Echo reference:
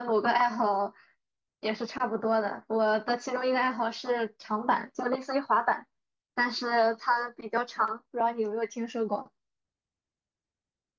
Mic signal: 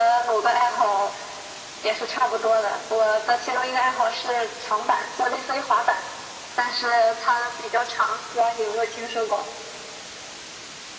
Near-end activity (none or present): none